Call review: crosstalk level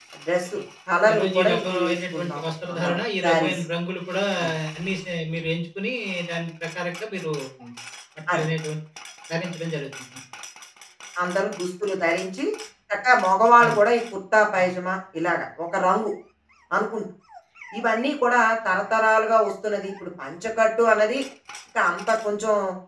present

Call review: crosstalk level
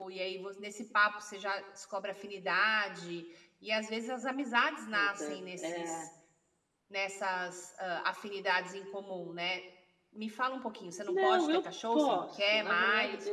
present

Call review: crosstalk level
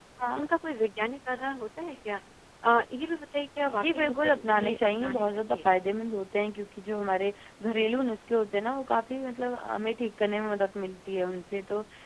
present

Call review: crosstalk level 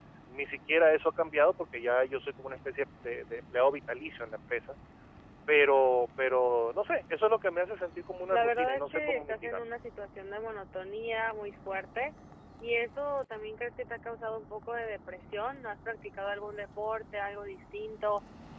present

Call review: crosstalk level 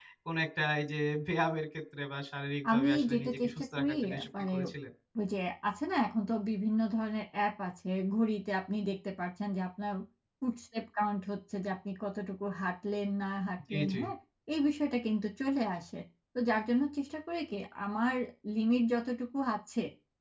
present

